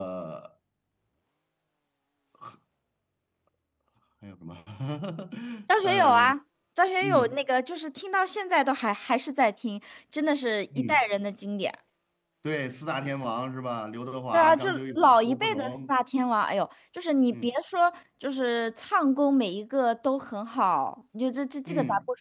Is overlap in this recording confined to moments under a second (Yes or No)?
No